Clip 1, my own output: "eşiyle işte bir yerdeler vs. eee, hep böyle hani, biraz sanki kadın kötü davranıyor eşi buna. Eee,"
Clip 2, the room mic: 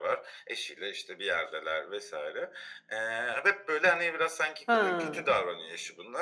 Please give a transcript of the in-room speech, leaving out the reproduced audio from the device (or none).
He.